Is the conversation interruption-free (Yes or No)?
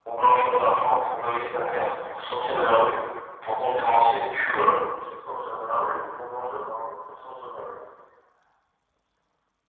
Yes